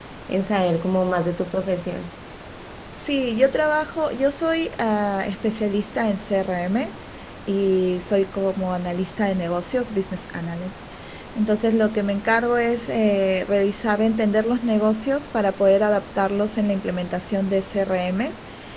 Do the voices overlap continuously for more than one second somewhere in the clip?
No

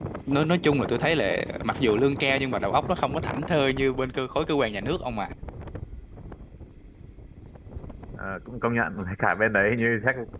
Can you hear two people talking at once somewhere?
No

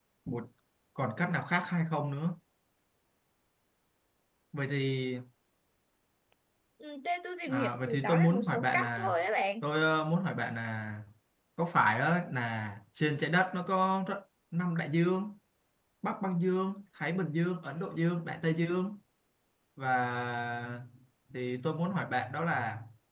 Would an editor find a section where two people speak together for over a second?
Yes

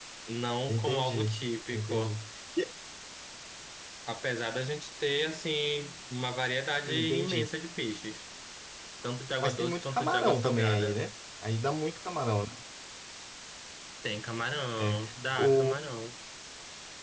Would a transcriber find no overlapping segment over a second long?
No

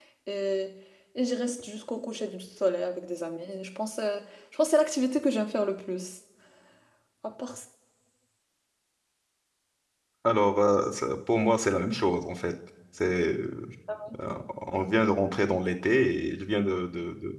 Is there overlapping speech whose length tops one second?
No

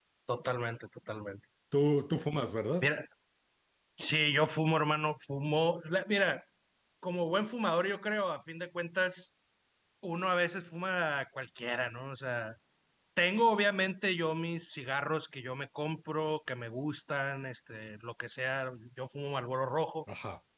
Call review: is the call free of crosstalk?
Yes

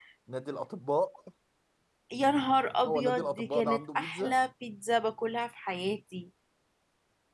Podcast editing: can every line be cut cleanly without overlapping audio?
No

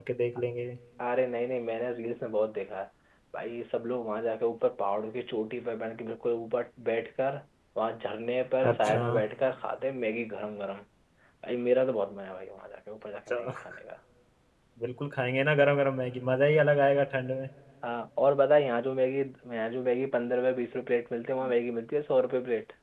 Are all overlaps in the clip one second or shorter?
Yes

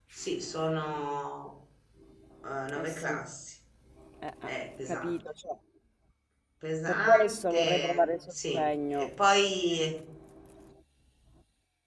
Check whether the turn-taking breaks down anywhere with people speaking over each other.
Yes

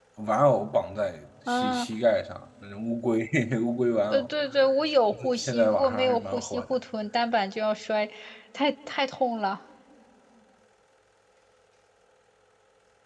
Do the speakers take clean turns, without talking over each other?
No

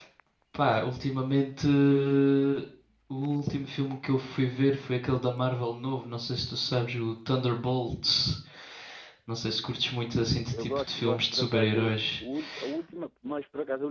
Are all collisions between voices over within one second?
No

